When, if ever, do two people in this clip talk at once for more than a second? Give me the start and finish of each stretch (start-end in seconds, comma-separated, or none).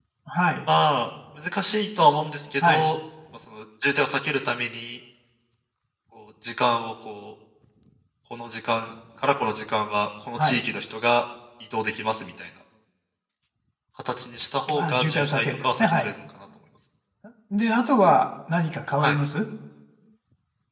14.8-16.1